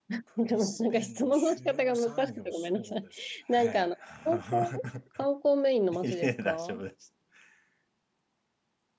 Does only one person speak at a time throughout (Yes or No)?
No